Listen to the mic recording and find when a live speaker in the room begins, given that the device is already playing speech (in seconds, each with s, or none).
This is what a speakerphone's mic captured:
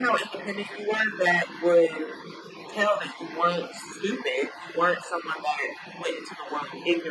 none